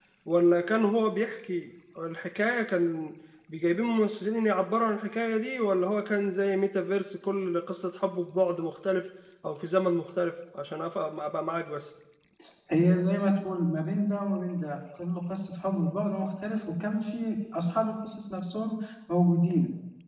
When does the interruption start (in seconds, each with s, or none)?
none